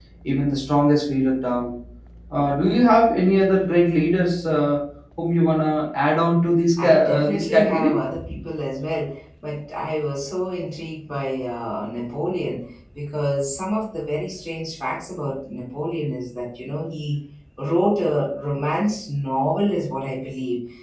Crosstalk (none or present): present